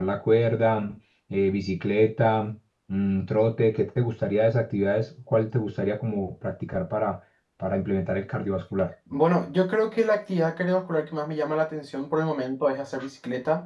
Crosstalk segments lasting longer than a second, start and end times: none

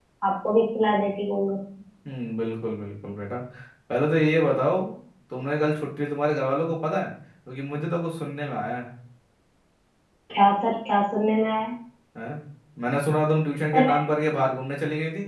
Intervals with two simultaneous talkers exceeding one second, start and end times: none

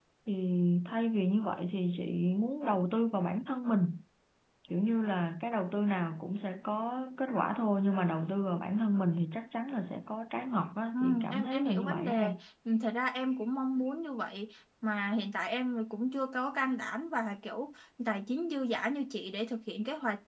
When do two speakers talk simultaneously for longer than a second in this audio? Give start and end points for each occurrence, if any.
10.9-12.4

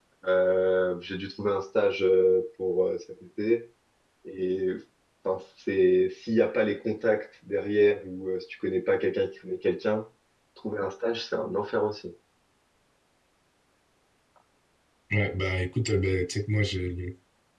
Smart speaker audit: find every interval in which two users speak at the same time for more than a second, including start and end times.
none

